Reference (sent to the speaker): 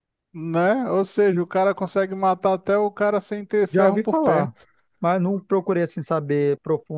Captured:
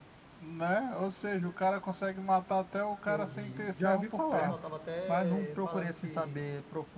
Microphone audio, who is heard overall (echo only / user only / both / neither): both